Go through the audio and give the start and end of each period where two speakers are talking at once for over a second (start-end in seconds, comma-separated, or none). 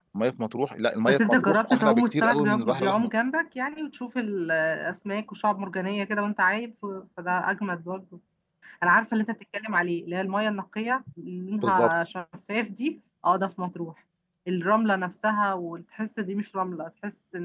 1.1-3.1